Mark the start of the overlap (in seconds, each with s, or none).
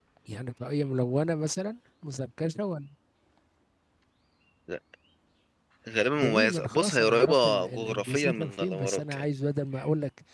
6.2 s